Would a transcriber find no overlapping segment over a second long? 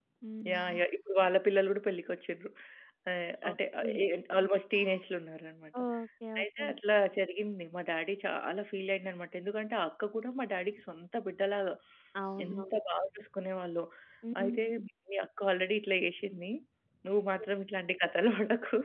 Yes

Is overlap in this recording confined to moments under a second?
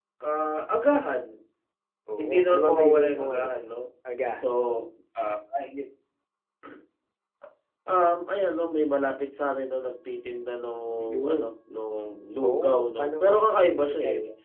No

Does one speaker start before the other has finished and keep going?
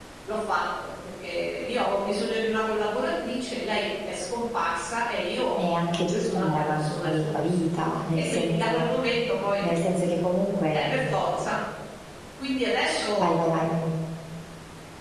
Yes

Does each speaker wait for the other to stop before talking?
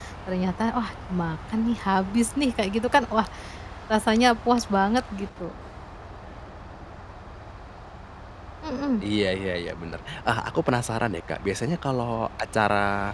Yes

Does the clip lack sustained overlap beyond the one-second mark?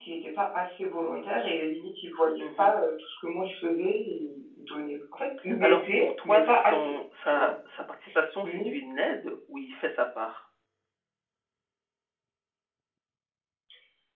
No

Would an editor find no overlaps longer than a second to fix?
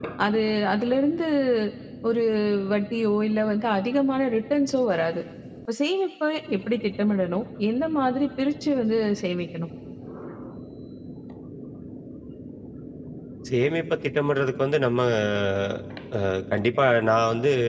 Yes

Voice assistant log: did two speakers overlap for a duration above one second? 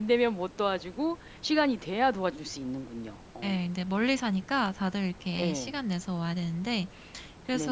No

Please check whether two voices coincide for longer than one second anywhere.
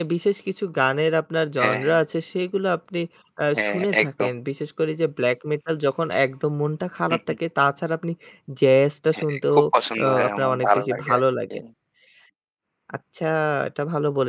Yes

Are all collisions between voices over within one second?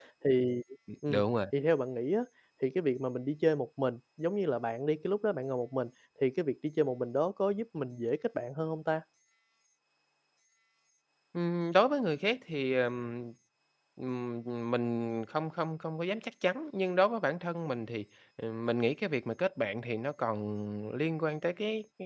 Yes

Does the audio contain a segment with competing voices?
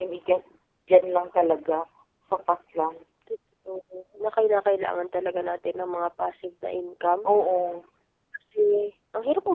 No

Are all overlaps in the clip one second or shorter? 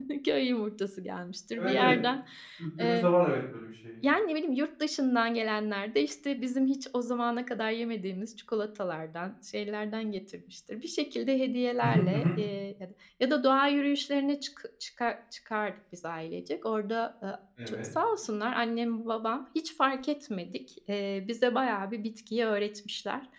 Yes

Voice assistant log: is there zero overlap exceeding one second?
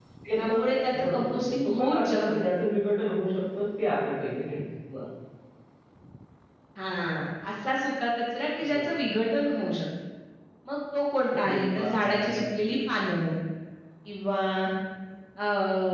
No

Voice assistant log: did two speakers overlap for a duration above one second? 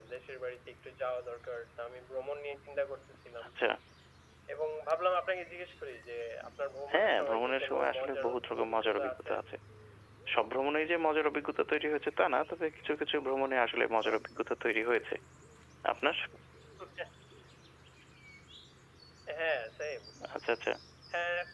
Yes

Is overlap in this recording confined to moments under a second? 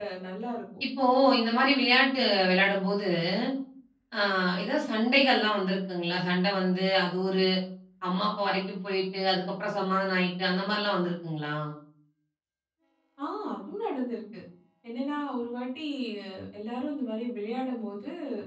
Yes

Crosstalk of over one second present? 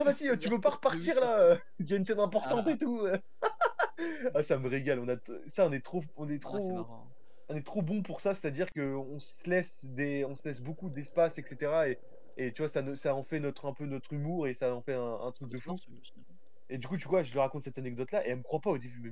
Yes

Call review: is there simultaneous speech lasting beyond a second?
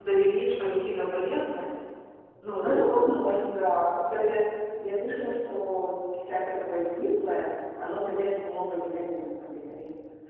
No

